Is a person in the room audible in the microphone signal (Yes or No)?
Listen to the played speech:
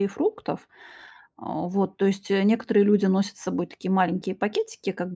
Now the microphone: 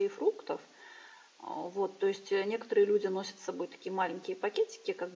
No